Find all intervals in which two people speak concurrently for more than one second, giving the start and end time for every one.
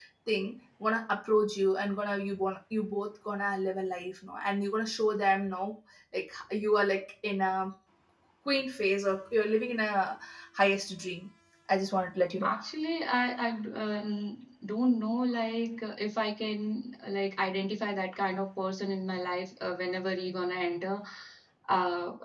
none

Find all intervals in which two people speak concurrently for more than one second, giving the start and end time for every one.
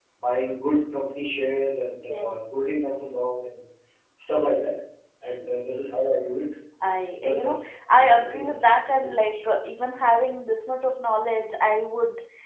7.1-9.4

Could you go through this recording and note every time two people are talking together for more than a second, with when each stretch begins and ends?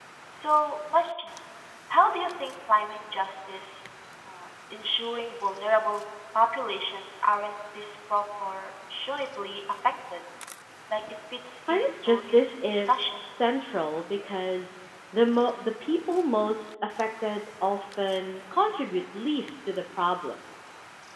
11.7-13.1

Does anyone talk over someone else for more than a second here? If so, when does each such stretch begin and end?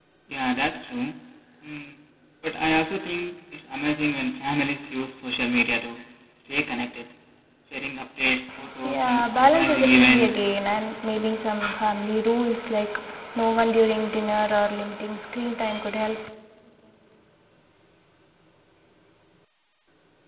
8.8-10.4

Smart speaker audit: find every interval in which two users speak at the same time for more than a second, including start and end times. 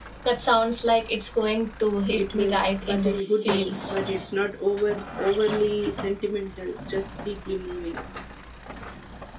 2.2-4.0

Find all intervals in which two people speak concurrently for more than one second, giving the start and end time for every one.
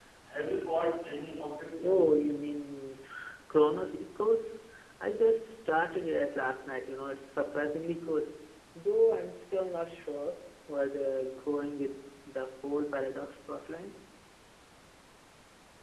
none

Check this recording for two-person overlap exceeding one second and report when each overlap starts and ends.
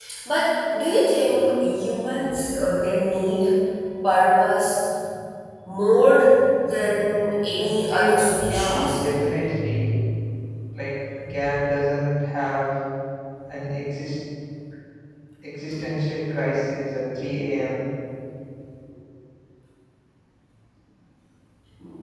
7.6-9.0

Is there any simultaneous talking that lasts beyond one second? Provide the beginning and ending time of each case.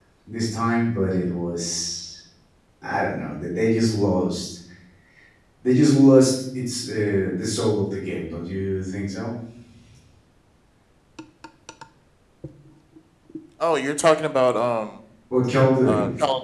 none

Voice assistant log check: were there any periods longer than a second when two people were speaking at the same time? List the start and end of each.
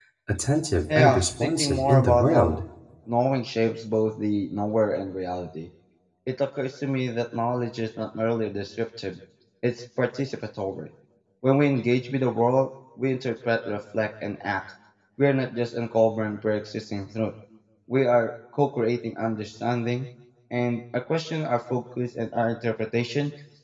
0.9-2.6

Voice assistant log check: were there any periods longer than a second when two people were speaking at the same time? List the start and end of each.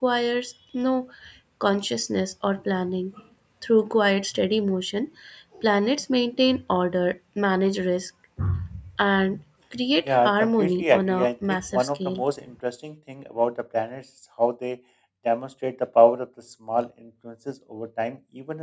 10.1-12.2

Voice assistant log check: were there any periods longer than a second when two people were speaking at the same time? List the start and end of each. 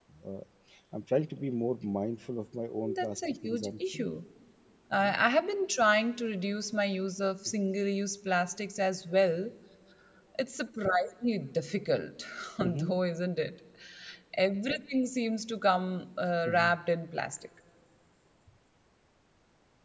2.8-4.1

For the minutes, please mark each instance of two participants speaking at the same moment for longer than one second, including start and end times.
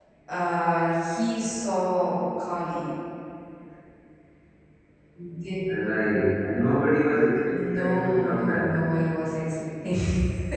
7.5-8.7

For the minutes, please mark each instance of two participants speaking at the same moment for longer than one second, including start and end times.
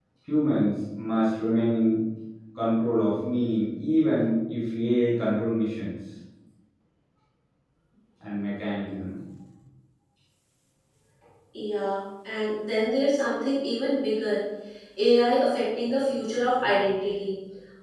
none

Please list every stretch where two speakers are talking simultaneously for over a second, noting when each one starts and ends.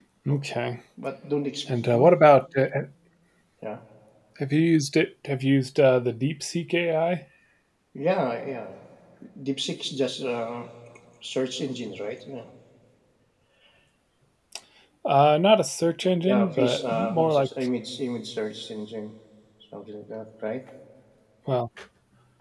16.2-17.5

